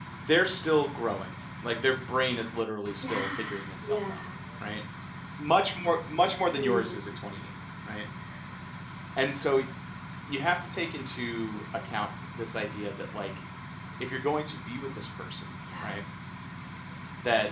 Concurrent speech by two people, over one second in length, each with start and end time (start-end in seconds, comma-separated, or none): 2.8-4.2